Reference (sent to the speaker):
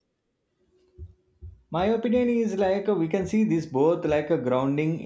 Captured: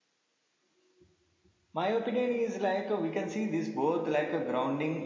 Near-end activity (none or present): none